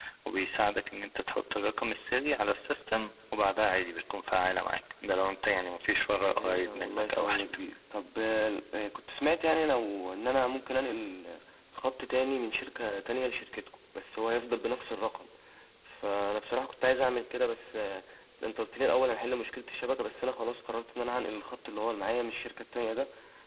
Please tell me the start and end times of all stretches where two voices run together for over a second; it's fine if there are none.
6.2-7.5

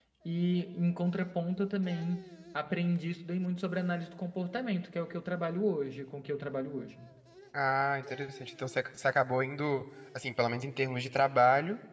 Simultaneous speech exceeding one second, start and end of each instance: none

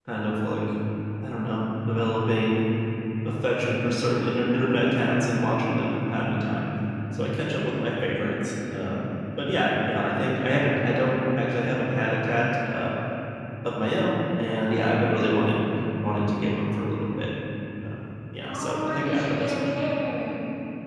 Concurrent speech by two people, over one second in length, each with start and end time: 18.4-19.8

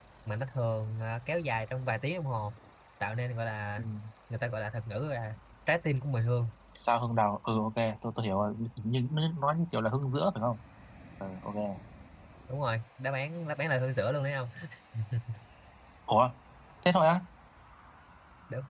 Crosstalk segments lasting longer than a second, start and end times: none

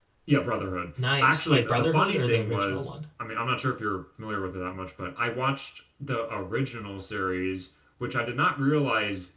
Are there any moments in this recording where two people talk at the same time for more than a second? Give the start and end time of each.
1.2-2.9

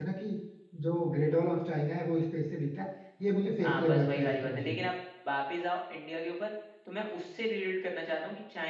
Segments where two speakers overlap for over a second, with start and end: 3.6-4.8

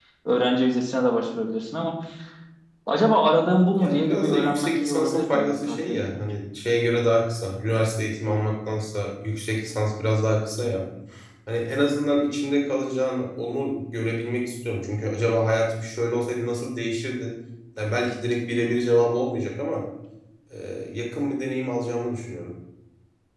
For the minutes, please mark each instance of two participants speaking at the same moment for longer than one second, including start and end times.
3.8-6.2

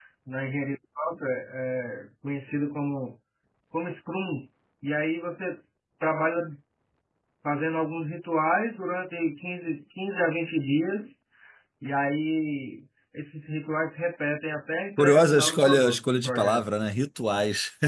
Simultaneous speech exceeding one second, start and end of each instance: 15.0-16.6

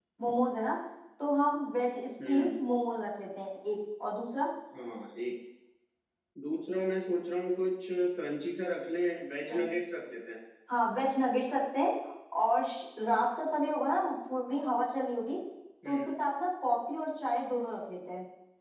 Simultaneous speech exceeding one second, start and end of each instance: none

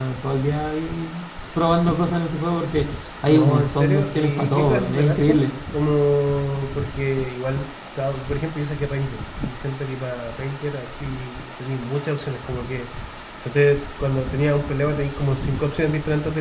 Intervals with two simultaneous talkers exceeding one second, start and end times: 3.2-5.4

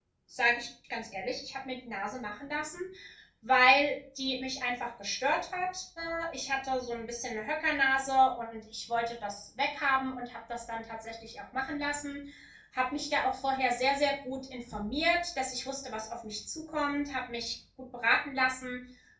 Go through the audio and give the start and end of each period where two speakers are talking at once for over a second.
none

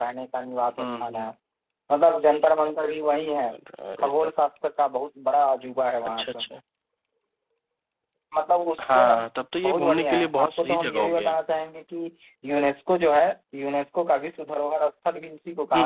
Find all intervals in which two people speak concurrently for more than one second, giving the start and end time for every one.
9.6-11.3

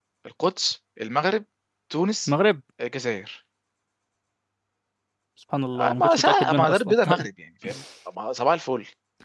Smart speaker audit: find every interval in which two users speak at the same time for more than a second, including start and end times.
5.8-7.3

